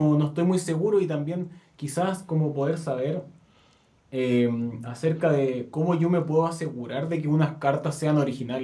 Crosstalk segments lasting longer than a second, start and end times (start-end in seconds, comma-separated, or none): none